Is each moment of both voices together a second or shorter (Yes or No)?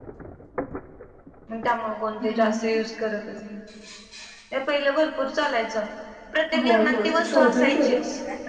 No